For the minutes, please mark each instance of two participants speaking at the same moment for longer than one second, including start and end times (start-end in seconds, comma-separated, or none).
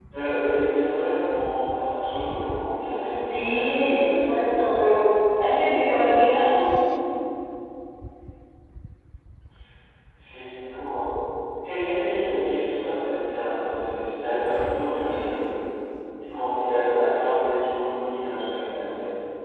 3.3-4.6